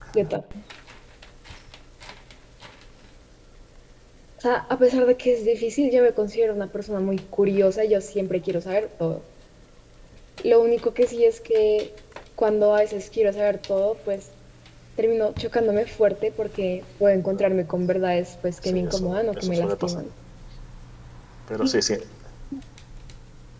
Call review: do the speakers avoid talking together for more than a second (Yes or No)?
No